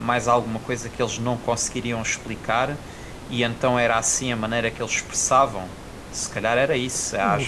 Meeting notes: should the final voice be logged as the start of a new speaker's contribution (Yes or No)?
Yes